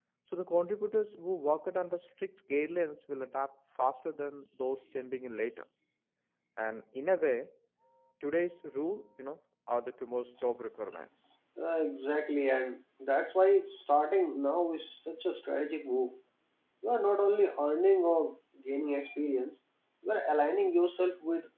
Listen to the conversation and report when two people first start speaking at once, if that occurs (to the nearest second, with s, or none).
none